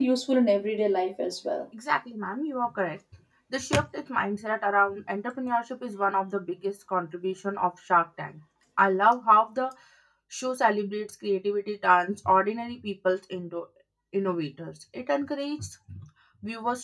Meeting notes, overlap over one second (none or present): none